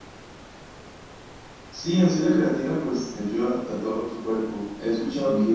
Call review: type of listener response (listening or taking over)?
listening